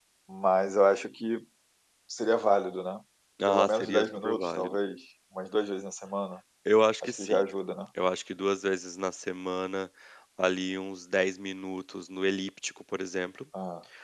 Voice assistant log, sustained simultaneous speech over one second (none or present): present